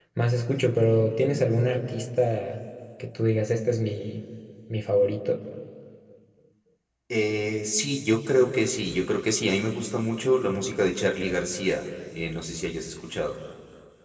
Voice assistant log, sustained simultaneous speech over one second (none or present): none